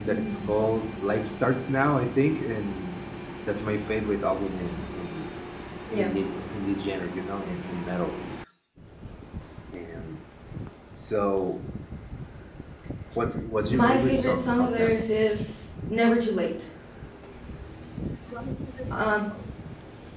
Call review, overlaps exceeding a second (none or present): present